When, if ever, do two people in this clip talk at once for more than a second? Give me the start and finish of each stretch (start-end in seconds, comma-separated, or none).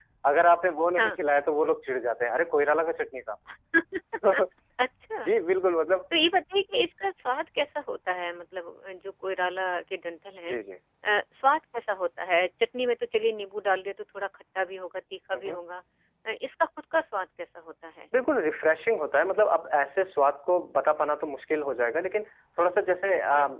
none